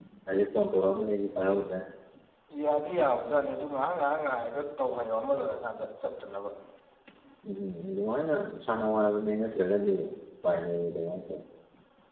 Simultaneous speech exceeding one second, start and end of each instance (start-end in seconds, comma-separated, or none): none